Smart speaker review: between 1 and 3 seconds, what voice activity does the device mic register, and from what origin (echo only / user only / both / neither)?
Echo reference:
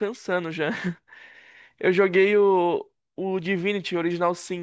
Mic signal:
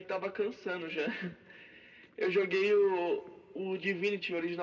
echo only